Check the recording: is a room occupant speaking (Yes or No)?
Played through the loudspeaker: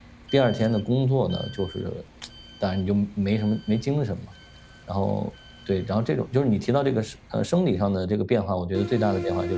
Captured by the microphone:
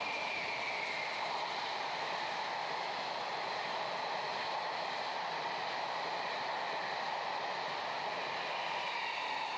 No